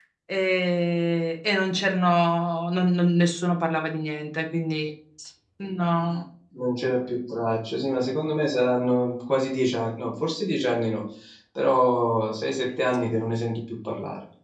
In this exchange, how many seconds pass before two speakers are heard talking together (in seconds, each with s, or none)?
none